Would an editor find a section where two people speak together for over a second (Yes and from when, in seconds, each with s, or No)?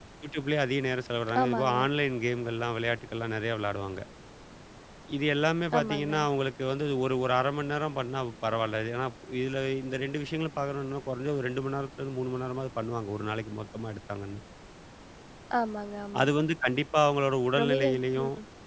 No